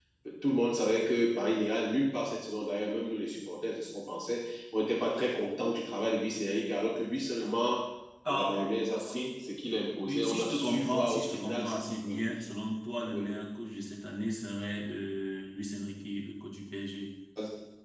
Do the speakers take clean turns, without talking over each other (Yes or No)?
No